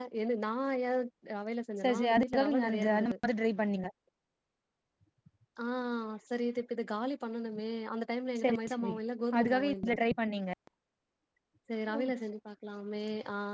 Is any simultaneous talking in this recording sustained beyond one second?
Yes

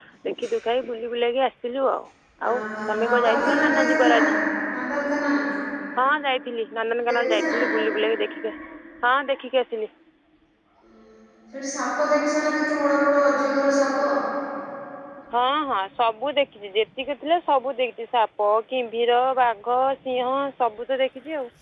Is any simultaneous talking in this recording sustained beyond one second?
Yes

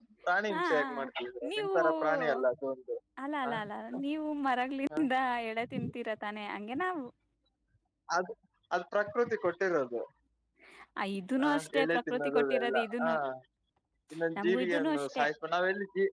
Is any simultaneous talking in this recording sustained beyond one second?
Yes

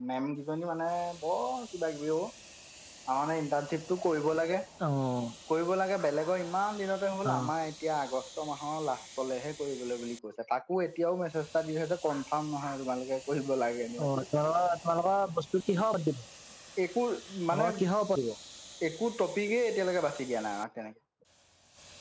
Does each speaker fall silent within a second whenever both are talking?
Yes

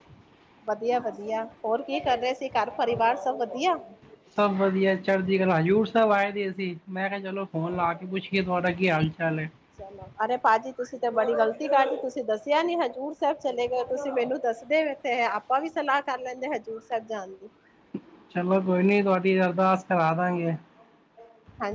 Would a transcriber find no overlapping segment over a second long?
Yes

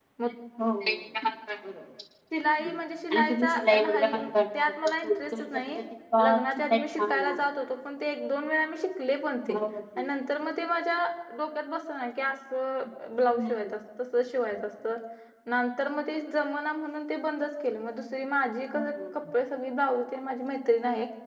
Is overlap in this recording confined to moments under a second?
No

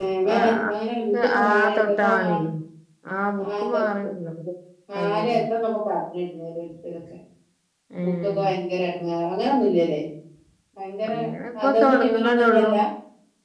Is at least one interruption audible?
Yes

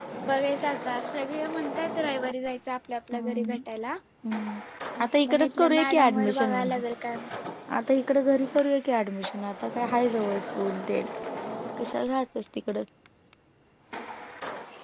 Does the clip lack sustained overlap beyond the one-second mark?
No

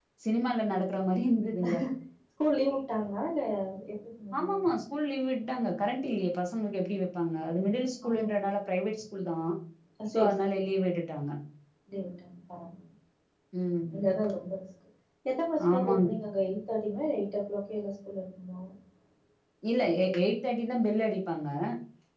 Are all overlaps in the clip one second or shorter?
Yes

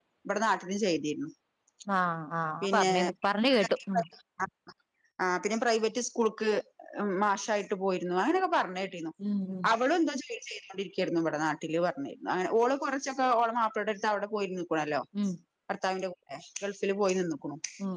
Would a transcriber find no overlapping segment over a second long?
Yes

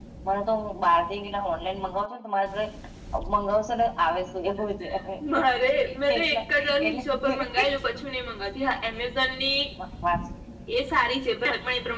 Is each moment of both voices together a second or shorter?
Yes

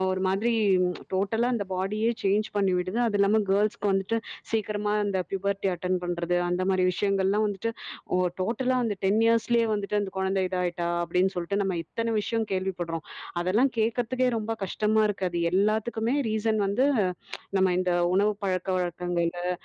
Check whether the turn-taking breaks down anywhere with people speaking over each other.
No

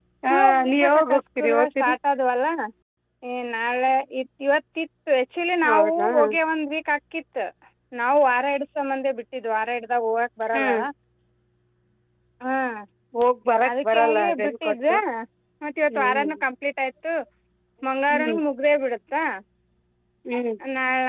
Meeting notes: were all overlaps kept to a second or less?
No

